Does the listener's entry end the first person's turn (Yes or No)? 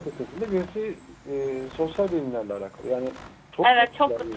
Yes